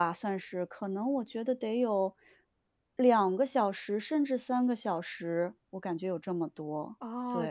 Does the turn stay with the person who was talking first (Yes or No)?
No